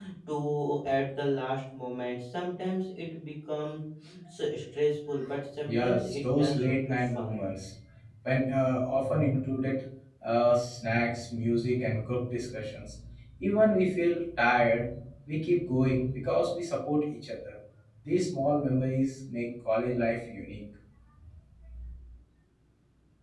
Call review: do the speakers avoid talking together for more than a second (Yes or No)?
No